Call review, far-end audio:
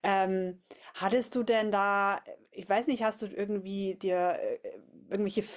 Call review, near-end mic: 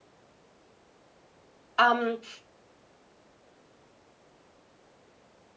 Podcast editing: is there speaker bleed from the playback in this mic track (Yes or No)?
No